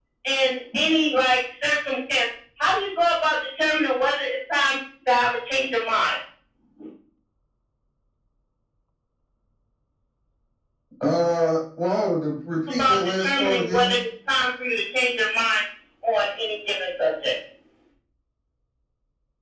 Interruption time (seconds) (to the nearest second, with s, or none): 13 s